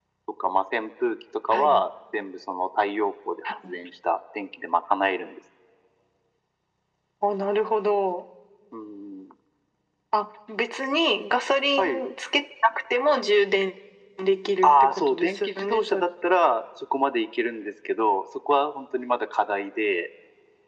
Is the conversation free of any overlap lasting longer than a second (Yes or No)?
No